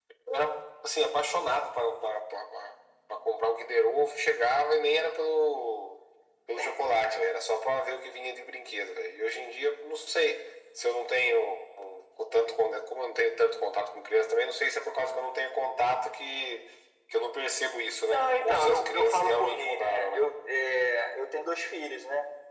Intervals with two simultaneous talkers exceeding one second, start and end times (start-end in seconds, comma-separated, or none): 18.0-20.2